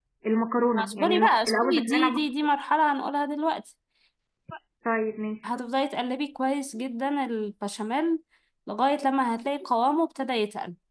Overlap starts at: 0.8 s

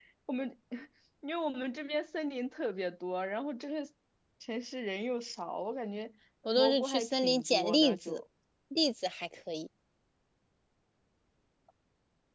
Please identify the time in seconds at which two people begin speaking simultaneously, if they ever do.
6.6 s

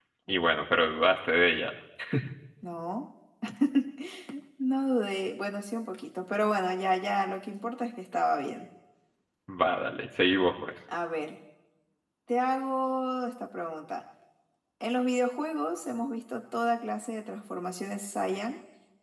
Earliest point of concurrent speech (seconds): none

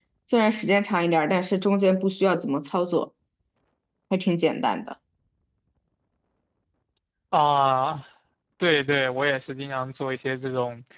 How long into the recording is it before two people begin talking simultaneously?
none

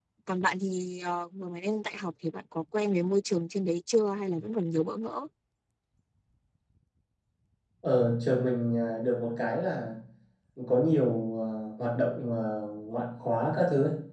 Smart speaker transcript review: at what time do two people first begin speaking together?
none

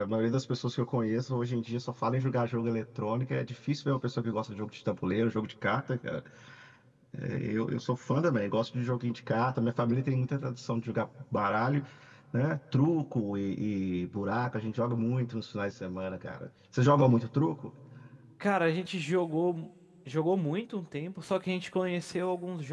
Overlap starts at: none

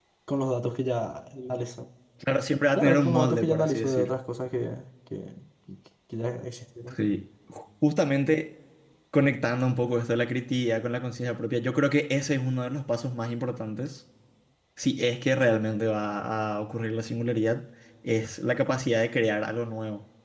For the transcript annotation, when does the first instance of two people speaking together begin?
2.8 s

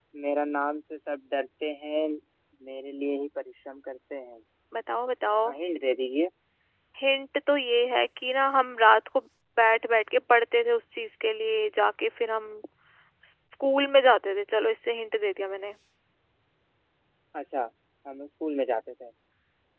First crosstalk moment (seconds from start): none

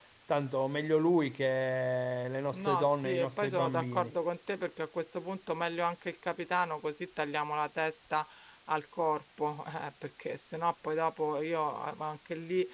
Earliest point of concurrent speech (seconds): 2.5 s

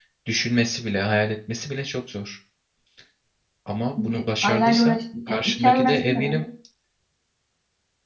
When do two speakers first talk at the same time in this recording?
4.0 s

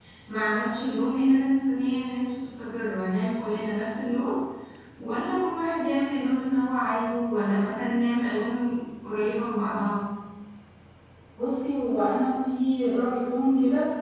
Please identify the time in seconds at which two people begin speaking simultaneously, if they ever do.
none

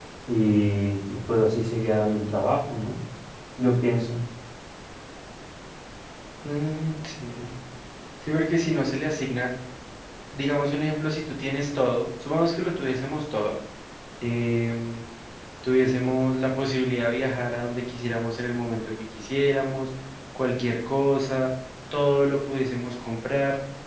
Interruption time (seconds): none

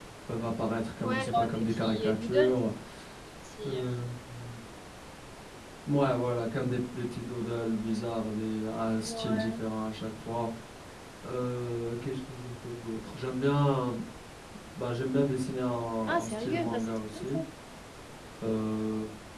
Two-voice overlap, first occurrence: 1.0 s

